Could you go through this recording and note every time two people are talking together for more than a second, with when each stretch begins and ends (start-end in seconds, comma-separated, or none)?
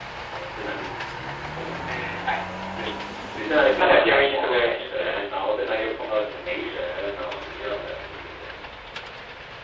3.8-5.2